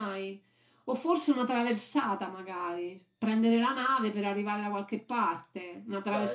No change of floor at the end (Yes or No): Yes